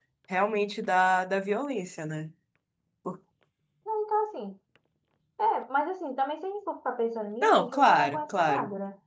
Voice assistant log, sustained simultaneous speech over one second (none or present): present